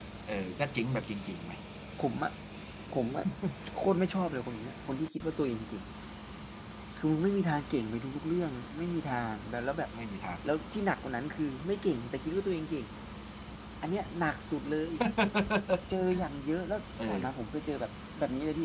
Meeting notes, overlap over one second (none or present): none